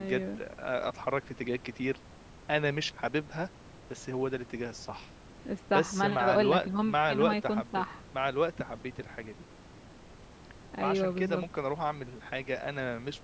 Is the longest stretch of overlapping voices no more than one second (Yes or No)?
No